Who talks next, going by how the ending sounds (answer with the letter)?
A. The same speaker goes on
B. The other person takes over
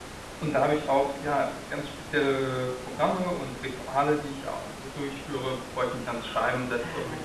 B